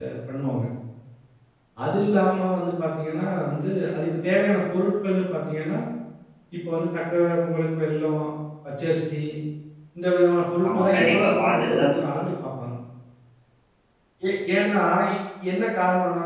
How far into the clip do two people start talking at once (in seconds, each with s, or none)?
10.7 s